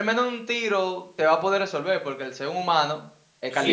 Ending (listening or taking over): taking over